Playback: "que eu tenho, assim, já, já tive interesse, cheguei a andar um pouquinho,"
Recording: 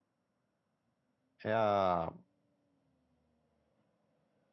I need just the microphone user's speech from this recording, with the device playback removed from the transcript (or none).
É a.